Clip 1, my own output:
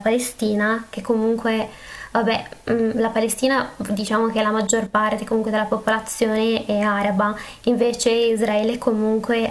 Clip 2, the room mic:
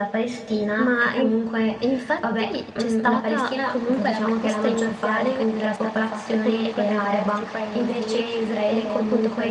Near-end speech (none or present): present